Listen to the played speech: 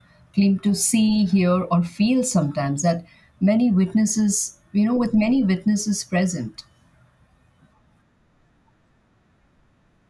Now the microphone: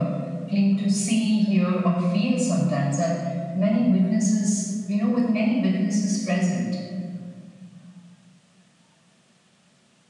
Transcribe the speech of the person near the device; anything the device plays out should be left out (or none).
none